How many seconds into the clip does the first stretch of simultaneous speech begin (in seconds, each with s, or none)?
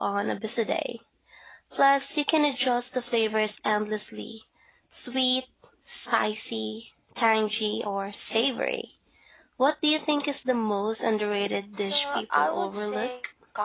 11.8 s